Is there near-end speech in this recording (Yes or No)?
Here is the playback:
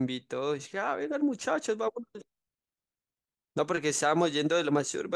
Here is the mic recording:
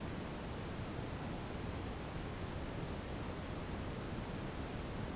No